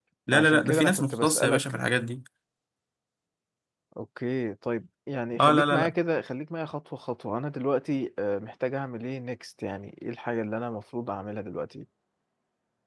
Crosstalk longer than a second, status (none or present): present